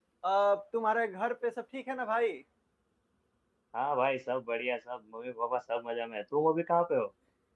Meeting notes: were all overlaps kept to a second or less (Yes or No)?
Yes